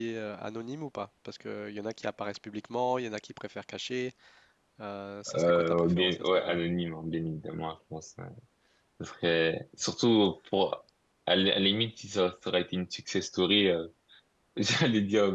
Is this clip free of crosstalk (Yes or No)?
No